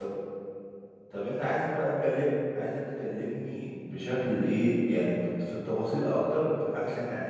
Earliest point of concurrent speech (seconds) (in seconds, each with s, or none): none